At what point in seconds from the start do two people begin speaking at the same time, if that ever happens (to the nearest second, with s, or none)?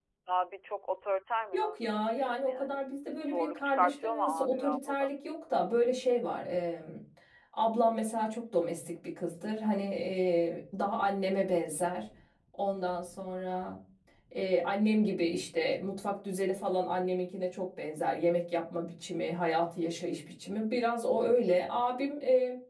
2 s